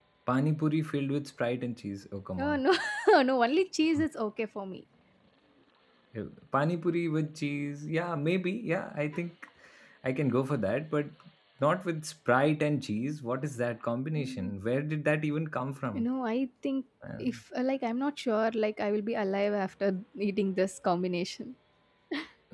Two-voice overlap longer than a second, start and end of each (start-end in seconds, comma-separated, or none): none